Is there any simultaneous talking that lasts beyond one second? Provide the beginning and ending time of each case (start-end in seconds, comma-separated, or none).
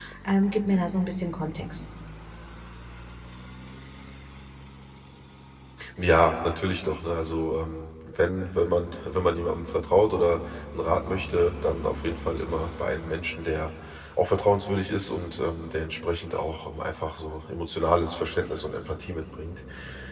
none